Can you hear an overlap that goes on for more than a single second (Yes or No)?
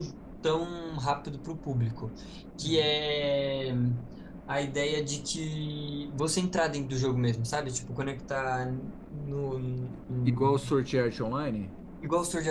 No